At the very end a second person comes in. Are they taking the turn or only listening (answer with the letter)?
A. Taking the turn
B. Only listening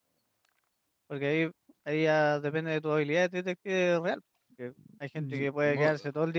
B